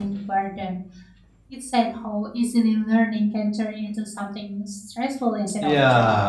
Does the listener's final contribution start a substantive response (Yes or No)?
Yes